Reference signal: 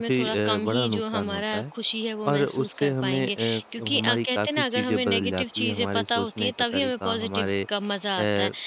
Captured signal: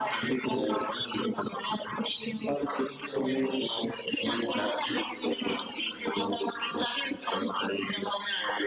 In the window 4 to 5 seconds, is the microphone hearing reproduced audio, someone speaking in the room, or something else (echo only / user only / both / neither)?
echo only